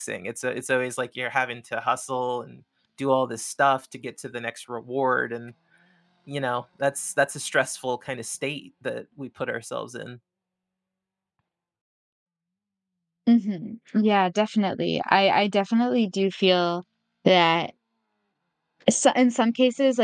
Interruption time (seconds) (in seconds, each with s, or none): none